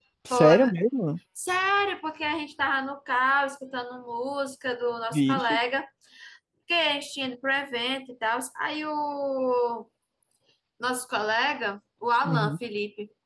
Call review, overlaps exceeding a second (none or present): none